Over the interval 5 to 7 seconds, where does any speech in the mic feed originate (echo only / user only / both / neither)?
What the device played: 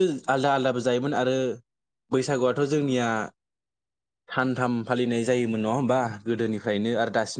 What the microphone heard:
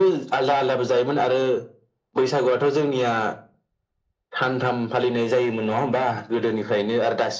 echo only